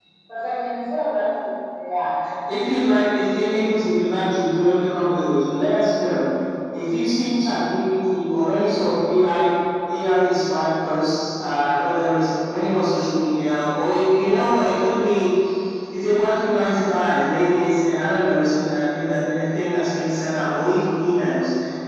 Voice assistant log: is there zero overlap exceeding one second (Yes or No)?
Yes